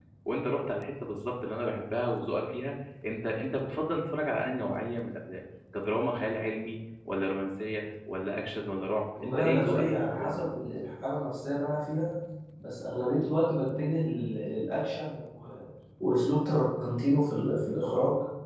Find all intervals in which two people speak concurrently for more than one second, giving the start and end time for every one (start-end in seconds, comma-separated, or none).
9.2-10.4